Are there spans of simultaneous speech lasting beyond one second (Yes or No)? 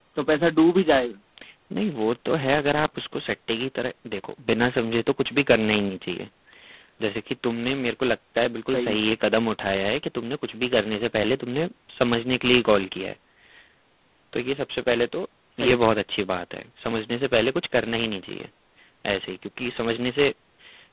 No